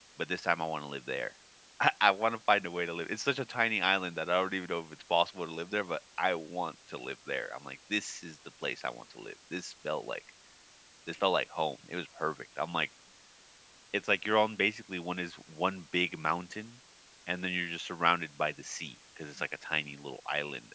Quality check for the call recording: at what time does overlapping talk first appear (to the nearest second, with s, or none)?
none